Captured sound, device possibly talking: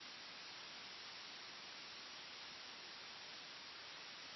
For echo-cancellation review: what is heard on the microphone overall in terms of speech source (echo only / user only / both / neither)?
neither